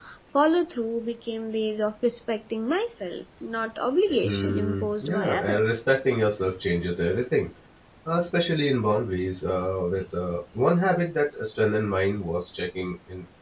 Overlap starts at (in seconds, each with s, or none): 4.1 s